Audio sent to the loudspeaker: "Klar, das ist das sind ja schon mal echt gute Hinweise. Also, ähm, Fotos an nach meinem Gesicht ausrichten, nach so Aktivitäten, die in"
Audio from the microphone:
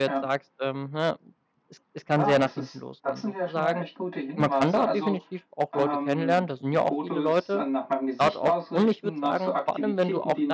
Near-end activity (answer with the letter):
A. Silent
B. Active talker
B